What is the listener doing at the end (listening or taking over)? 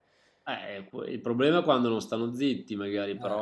listening